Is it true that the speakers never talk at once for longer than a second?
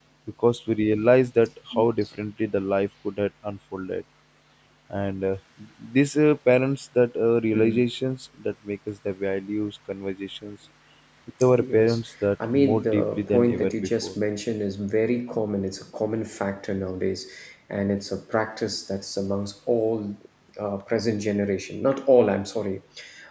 No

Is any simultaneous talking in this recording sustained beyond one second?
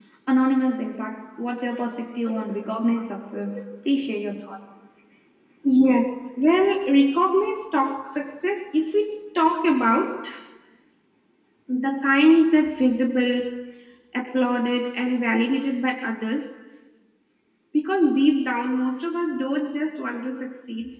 No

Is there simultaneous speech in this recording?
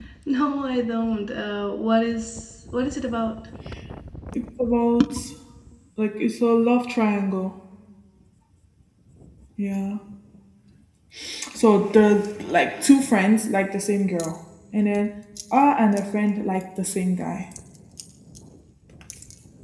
No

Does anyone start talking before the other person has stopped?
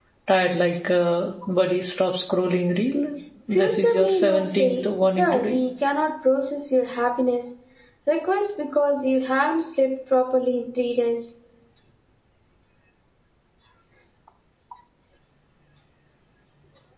Yes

